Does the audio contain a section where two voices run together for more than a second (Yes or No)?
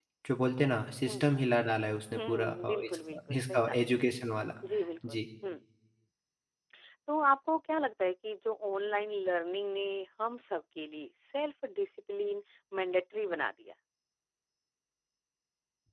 Yes